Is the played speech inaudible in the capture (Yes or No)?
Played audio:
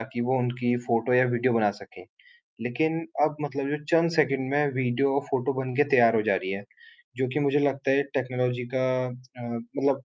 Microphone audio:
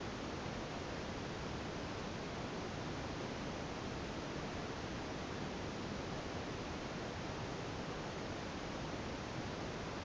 Yes